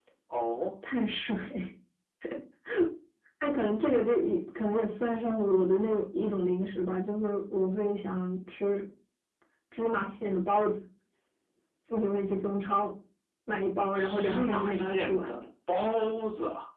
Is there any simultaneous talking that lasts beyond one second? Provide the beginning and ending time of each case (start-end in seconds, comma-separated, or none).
13.9-15.4